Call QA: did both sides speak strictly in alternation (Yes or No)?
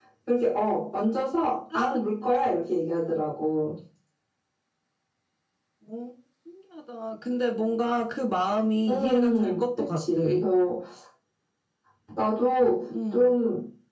No